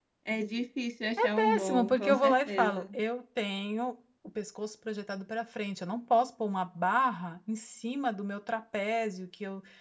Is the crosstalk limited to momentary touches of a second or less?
No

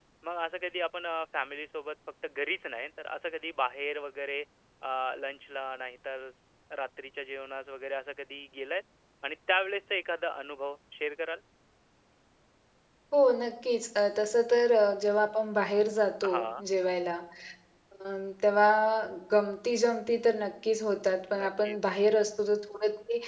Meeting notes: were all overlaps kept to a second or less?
Yes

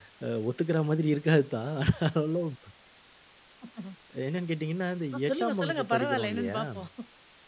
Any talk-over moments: Yes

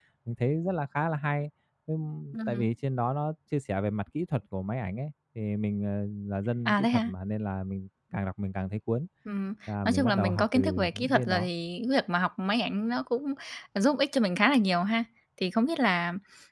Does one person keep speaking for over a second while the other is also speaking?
Yes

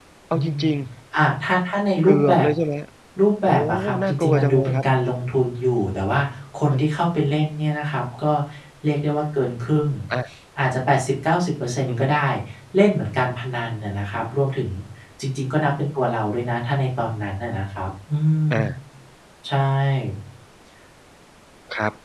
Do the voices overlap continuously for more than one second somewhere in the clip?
Yes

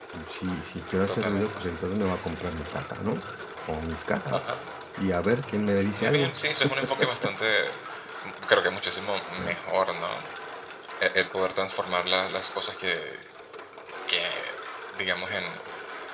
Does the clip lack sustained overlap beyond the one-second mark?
Yes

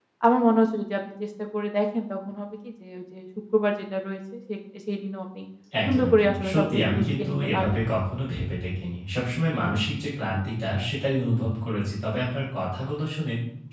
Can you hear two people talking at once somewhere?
Yes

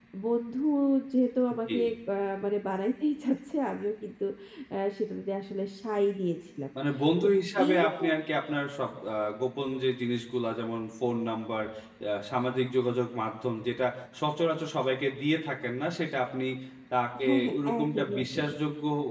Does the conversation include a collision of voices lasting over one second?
Yes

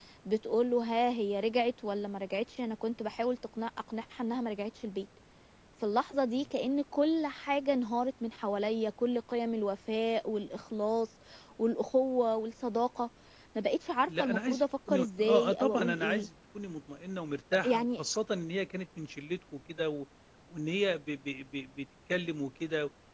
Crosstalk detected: Yes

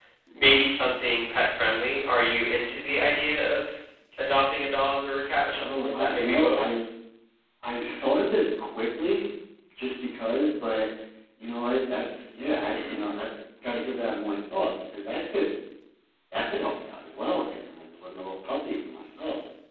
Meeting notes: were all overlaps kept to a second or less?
No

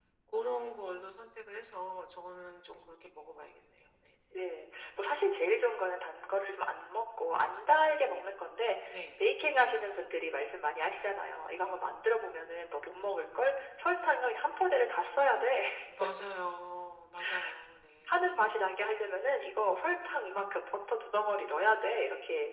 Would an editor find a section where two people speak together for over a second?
No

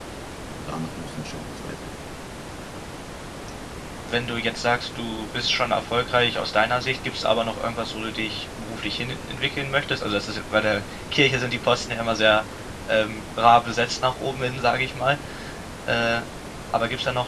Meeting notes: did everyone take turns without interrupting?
Yes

